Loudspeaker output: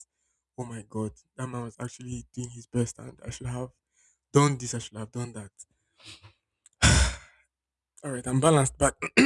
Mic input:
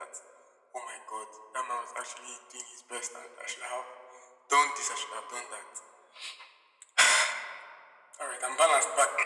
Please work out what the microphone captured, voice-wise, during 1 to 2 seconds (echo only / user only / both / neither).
echo only